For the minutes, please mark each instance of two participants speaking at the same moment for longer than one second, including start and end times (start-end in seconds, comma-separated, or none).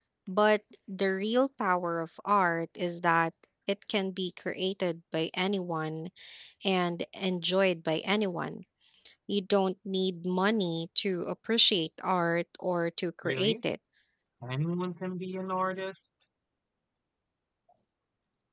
none